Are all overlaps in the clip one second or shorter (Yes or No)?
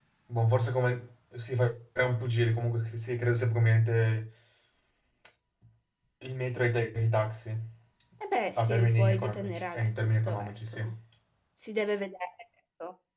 No